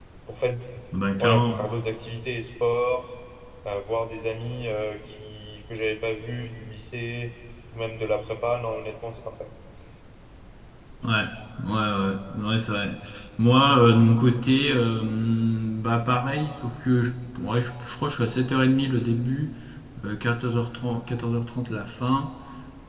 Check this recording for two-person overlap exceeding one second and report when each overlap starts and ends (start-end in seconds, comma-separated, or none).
none